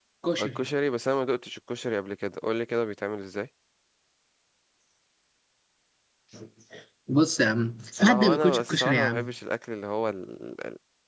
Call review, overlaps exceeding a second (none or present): present